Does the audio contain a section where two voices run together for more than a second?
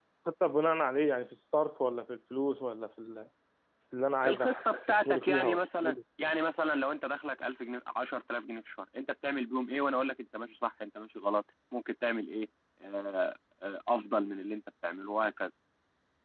Yes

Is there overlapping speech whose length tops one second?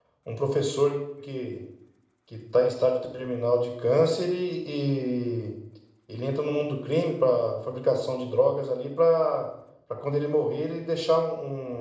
No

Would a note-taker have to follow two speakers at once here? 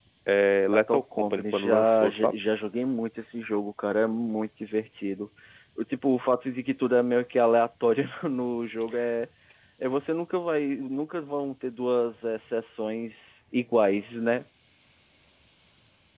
Yes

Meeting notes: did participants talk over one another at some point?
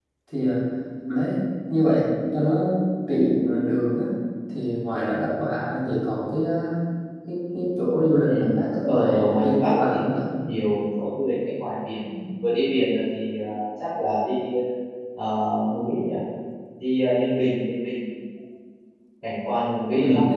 Yes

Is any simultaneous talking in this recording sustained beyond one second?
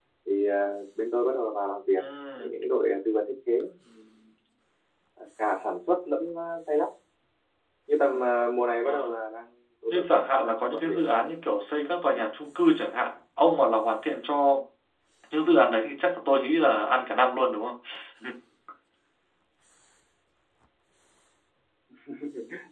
Yes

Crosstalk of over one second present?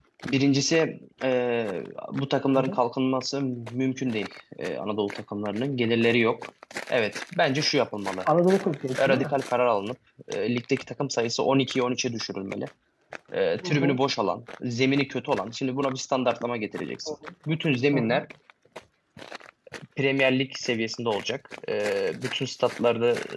No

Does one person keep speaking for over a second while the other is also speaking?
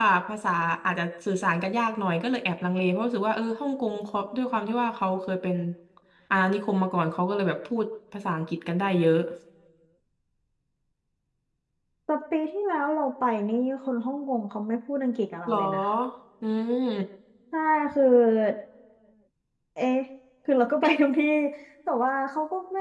No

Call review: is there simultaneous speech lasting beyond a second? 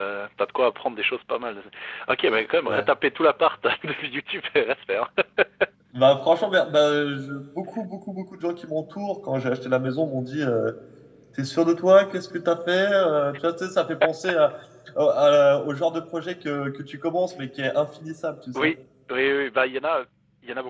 No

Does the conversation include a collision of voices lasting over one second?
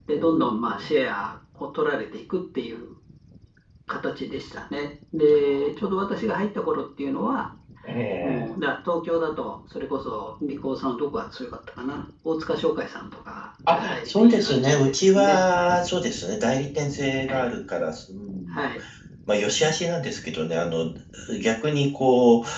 Yes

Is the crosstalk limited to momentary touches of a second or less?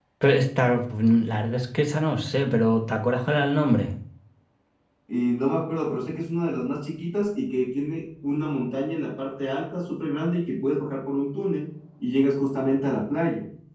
Yes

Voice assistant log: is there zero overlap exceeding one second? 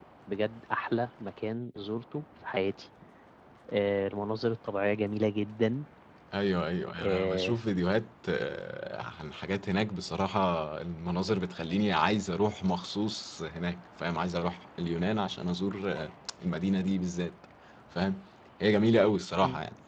Yes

